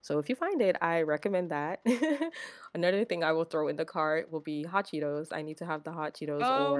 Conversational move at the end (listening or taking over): taking over